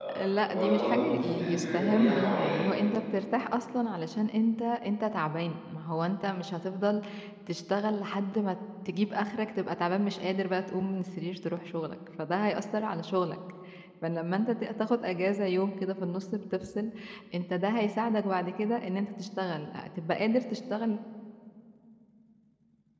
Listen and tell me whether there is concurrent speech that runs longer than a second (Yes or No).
Yes